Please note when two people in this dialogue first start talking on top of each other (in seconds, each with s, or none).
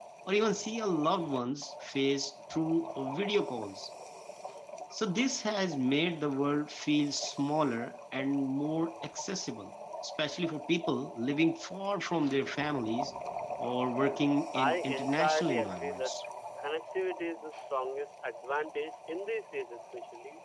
14.5 s